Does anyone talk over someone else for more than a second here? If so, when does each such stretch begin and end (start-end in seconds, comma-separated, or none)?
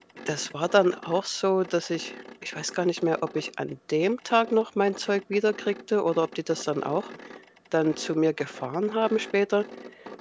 none